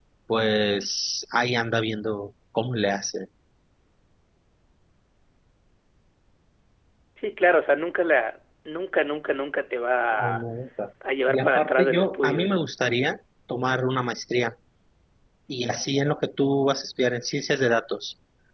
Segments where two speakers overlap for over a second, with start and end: 11.3-12.5

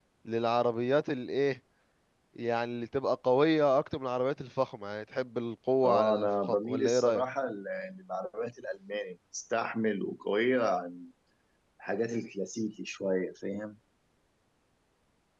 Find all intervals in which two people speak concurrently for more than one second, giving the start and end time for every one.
5.8-7.2

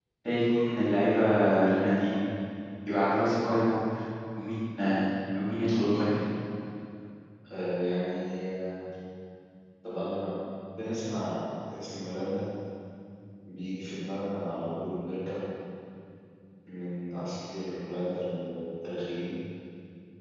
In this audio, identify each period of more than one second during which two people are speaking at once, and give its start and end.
none

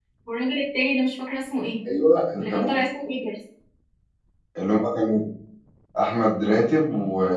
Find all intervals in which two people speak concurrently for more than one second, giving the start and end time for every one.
none

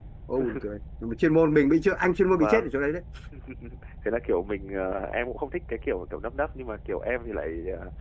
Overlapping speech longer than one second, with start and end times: none

